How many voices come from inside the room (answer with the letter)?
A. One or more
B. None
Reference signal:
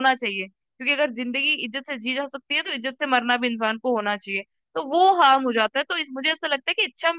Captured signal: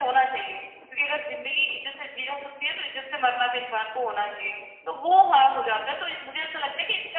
B